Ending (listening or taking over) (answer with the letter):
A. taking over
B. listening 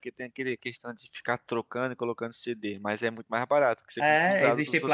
A